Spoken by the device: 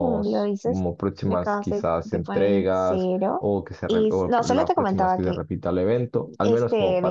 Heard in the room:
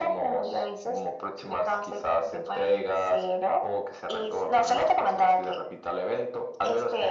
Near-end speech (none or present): none